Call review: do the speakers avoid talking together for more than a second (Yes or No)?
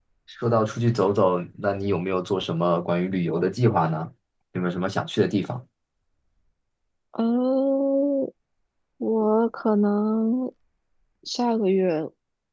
Yes